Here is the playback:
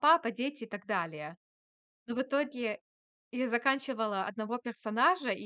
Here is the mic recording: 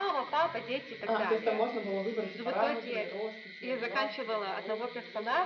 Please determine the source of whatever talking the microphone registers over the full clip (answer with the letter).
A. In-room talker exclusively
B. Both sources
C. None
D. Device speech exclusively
B